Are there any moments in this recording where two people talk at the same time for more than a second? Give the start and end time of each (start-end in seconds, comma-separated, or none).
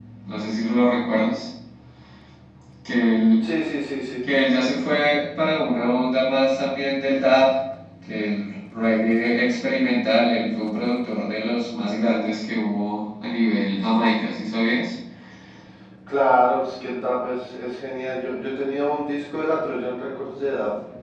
none